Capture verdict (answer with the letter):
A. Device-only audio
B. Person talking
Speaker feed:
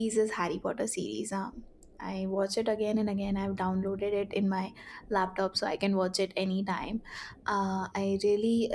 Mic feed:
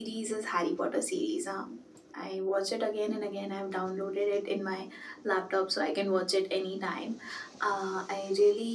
A